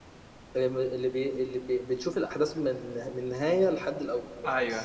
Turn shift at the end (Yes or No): Yes